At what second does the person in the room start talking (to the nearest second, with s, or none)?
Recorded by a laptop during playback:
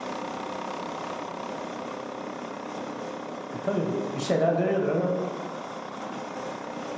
4 s